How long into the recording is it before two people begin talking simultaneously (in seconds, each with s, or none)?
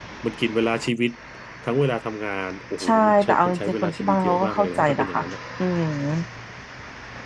2.8 s